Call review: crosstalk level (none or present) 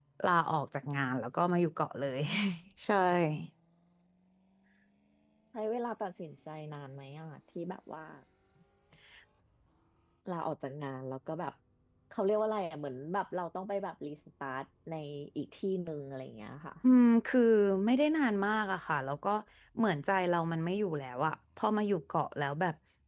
none